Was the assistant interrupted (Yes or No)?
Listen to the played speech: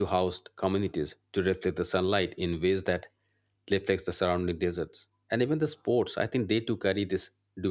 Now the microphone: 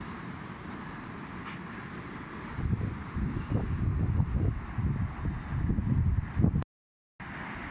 No